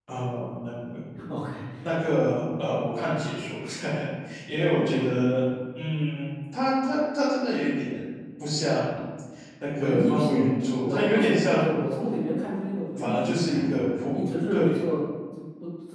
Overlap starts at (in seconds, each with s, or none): 9.8 s